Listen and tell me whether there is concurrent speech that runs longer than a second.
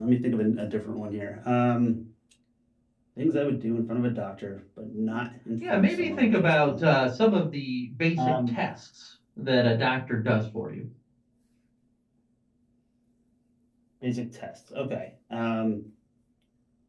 Yes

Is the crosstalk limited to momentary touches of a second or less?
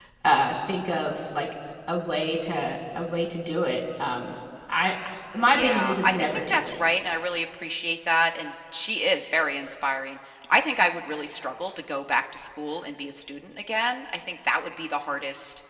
No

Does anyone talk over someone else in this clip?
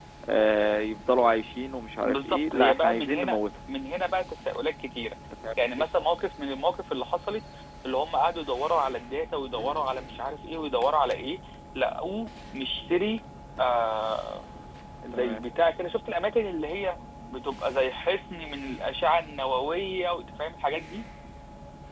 Yes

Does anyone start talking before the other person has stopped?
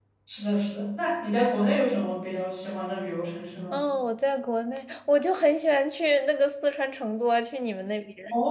No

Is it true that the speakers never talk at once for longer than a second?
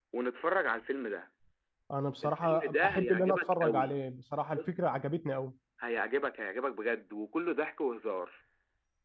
No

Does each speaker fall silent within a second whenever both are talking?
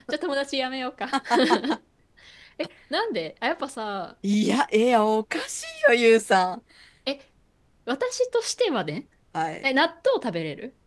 Yes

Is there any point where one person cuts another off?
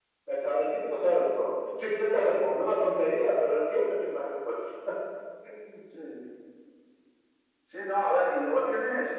No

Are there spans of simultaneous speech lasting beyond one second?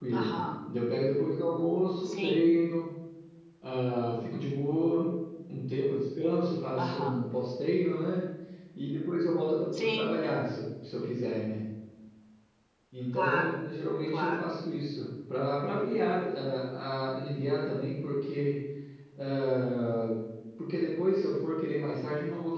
No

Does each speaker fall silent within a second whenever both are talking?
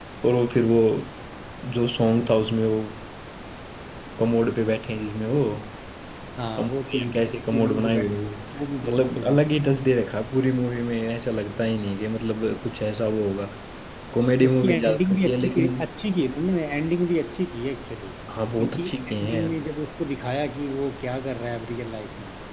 No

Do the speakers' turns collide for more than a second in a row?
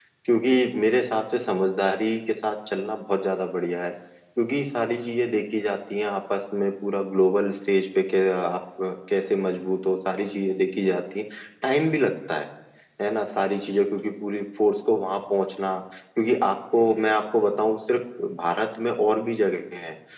No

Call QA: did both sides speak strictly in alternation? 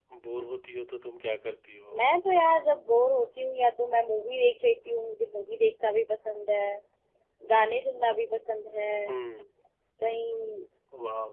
Yes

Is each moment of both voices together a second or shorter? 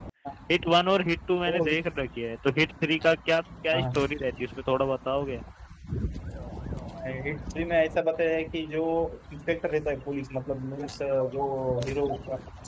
Yes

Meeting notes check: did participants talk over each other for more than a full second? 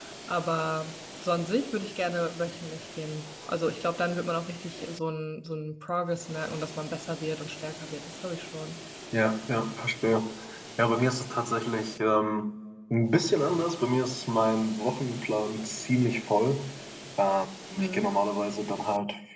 No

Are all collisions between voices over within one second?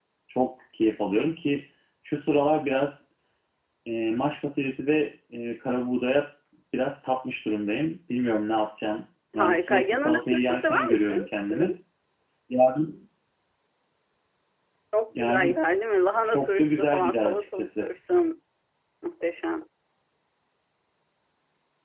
No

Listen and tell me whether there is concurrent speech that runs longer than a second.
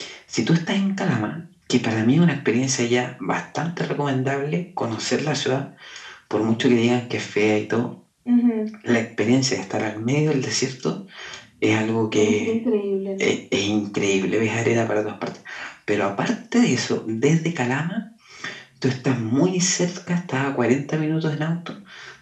No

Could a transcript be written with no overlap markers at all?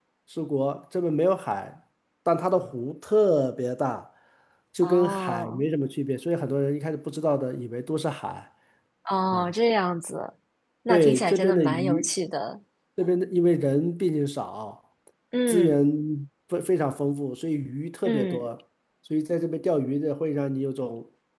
No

